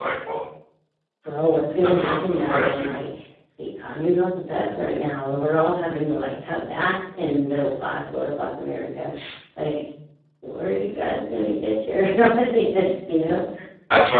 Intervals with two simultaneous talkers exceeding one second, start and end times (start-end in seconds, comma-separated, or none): 1.7-3.0